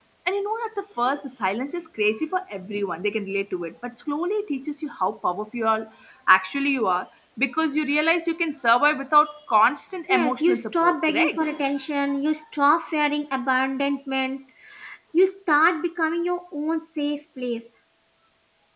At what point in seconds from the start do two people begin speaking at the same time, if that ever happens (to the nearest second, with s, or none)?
10 s